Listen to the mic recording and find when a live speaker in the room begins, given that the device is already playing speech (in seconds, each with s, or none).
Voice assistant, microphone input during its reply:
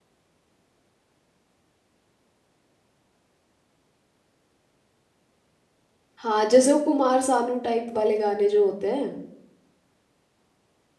6.2 s